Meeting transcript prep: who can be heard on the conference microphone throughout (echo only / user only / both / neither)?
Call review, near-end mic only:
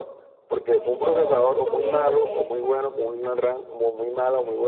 both